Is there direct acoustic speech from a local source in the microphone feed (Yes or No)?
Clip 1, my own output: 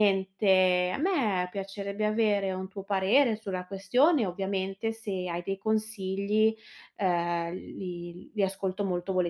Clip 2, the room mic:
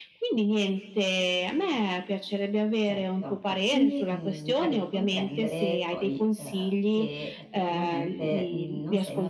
Yes